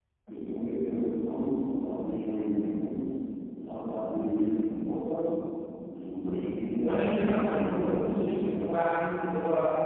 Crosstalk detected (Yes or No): Yes